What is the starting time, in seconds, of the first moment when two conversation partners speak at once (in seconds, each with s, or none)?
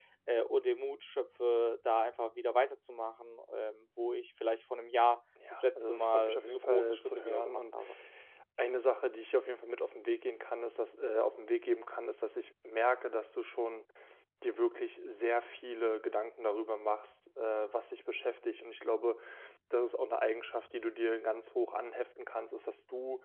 5.4 s